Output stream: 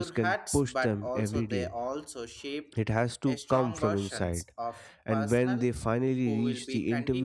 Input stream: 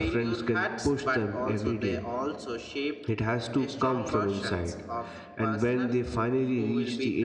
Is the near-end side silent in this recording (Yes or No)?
Yes